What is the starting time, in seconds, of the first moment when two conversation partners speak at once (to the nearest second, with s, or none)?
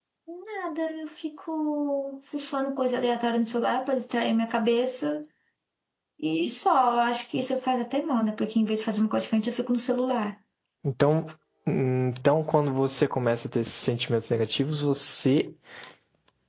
none